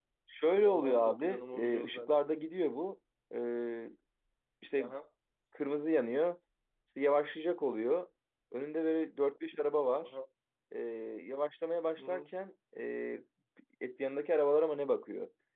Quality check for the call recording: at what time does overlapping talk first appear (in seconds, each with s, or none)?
0.6 s